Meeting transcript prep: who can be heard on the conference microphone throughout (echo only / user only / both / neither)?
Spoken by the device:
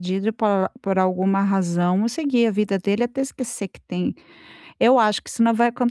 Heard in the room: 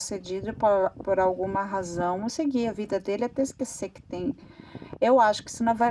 echo only